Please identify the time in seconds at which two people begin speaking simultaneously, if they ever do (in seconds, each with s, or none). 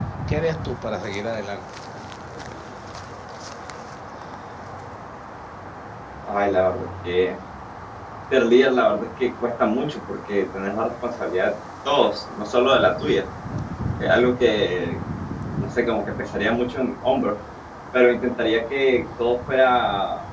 none